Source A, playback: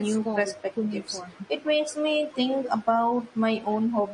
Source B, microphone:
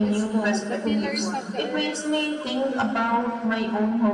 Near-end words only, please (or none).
The Pillars of the Earth